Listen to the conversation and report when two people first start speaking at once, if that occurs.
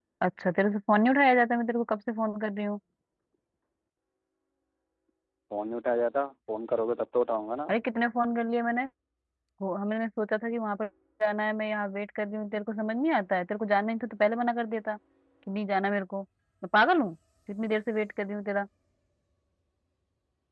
none

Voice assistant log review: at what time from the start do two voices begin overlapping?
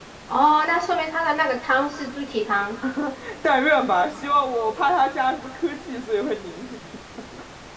none

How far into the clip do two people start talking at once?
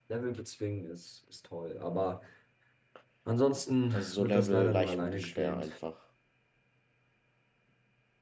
3.9 s

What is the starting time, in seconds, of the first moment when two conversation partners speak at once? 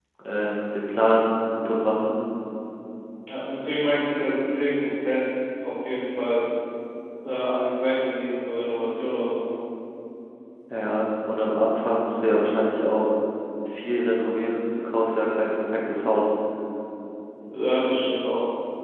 none

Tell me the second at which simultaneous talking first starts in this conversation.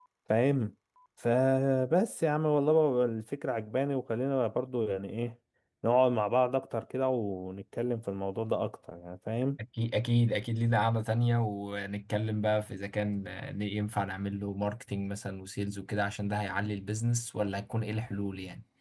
none

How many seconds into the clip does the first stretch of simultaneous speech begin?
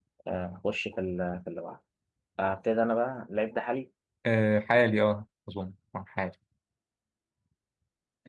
none

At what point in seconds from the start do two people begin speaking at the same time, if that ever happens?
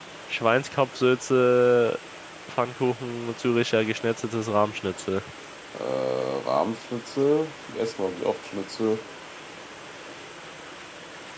none

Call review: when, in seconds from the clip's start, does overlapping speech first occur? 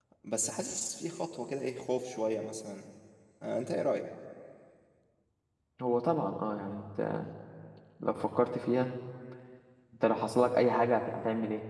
none

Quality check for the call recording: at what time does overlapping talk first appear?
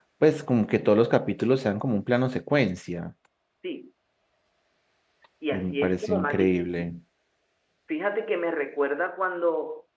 5.5 s

